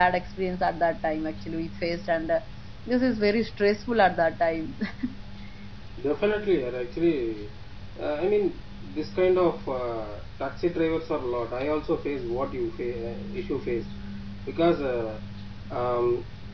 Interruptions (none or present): none